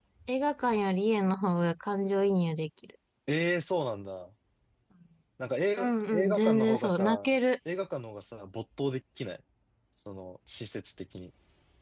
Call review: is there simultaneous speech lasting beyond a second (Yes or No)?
Yes